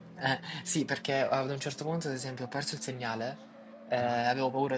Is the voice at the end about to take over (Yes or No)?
No